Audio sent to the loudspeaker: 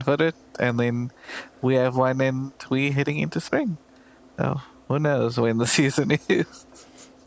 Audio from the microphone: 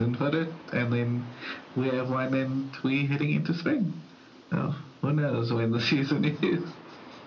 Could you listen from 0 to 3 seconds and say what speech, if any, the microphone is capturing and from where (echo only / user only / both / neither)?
echo only